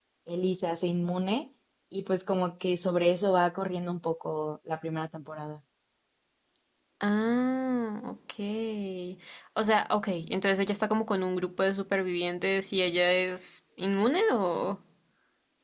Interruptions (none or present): none